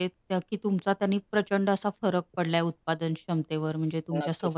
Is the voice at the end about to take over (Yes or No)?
Yes